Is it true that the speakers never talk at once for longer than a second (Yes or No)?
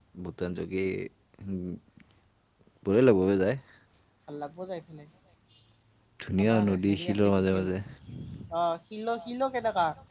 No